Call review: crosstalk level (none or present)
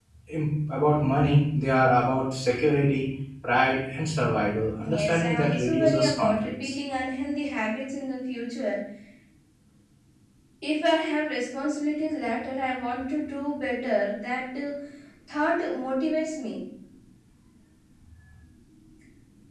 present